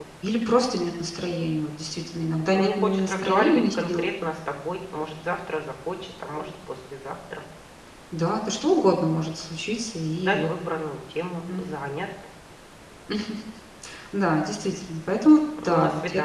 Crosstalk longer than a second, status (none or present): present